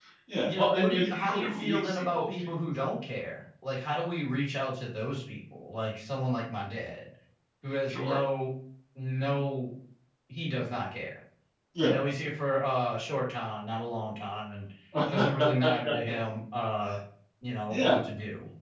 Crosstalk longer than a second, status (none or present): present